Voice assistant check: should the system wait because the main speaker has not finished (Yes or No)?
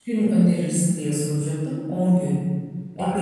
No